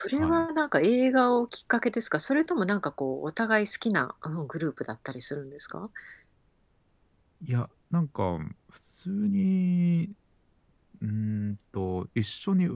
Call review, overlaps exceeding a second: none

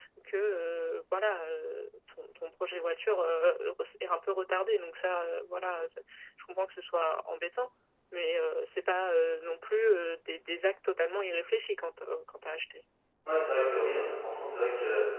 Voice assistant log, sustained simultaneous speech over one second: none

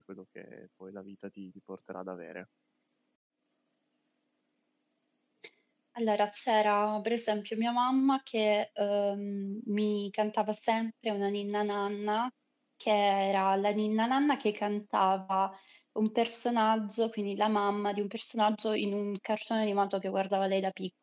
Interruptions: none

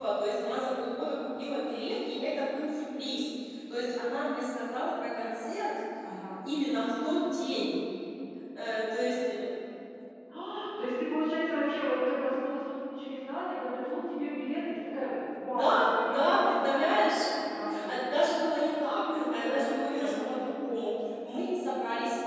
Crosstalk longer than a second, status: present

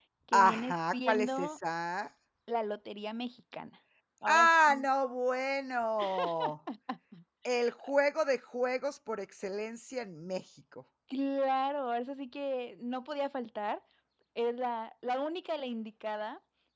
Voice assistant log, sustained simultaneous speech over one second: present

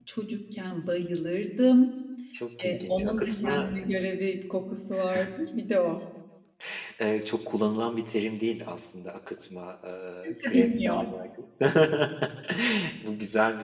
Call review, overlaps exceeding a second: present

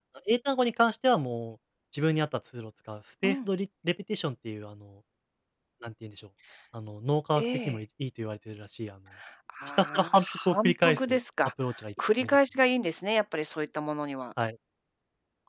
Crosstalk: present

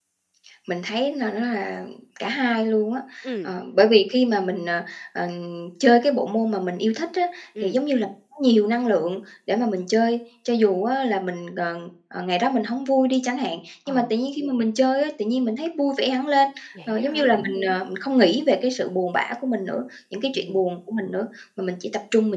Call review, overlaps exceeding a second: none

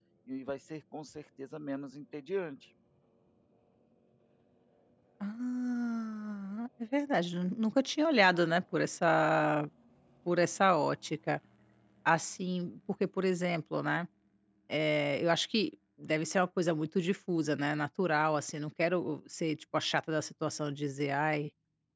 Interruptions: none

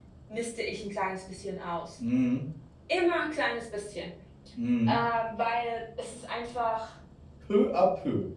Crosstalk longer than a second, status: none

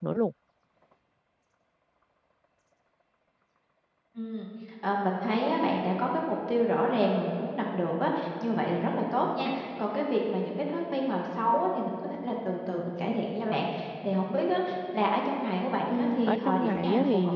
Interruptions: present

